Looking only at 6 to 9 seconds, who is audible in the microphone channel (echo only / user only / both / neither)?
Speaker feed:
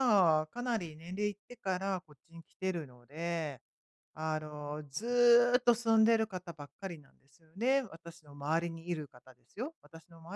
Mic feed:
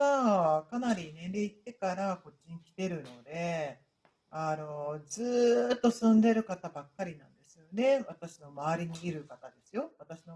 echo only